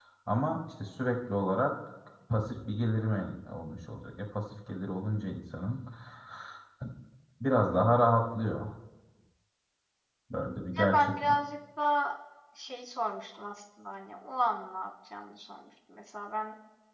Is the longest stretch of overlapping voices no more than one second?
Yes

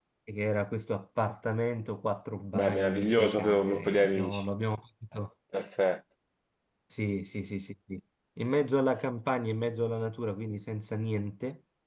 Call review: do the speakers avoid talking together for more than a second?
No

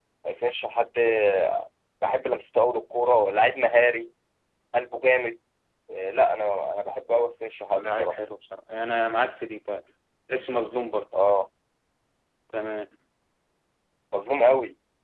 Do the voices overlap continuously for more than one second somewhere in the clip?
No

